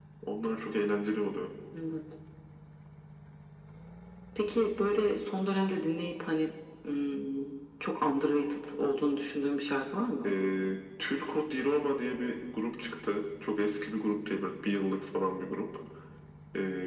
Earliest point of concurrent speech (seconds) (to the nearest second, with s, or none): none